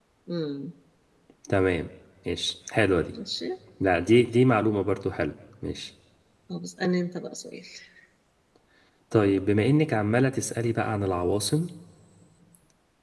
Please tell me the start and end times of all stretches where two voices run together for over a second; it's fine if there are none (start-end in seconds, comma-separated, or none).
none